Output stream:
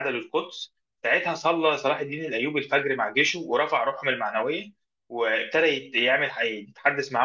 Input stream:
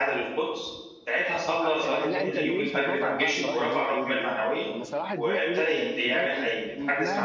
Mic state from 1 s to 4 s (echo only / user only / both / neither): both